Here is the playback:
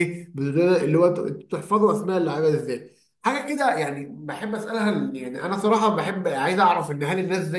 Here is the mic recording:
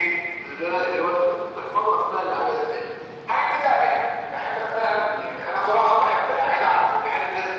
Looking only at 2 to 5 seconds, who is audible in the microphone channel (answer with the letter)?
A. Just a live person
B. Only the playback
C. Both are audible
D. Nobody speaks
B